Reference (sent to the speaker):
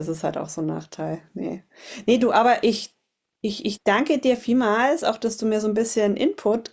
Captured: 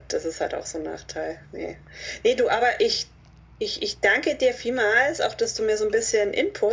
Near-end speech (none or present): none